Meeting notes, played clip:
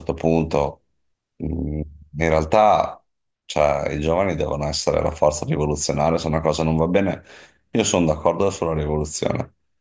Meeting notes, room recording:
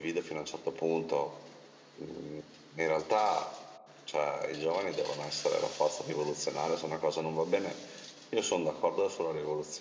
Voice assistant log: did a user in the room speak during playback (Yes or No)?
No